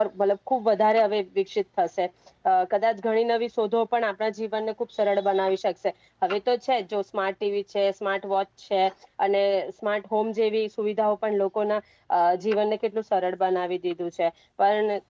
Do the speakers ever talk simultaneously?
No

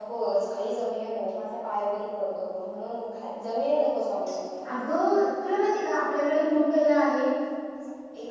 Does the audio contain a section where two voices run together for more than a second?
No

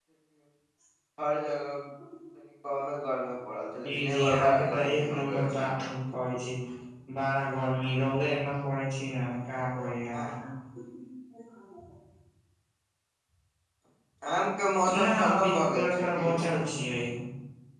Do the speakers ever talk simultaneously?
Yes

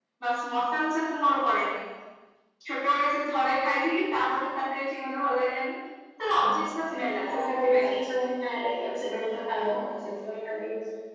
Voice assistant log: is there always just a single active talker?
No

